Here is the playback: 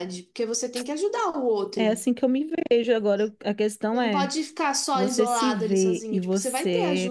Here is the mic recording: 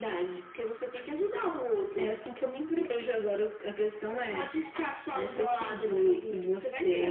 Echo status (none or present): present